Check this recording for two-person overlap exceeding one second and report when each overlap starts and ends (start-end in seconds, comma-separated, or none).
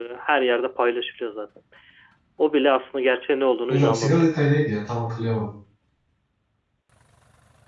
none